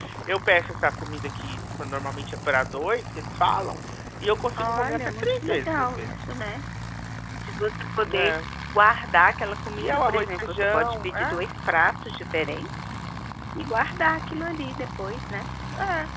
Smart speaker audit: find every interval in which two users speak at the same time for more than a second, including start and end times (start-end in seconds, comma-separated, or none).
4.6-6.1, 9.8-11.4